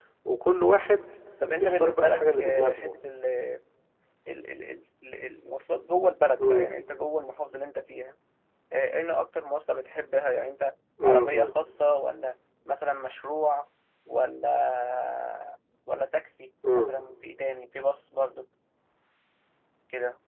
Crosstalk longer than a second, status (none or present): present